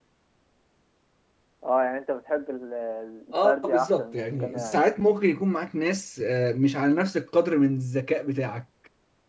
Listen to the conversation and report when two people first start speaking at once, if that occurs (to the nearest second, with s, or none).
3 s